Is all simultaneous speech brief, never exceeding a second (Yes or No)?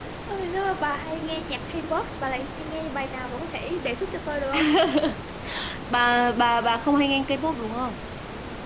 Yes